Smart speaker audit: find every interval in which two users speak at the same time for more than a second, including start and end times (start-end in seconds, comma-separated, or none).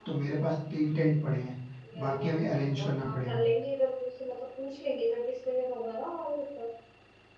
2.1-3.4